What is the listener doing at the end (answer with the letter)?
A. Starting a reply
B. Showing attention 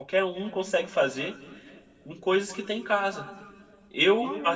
B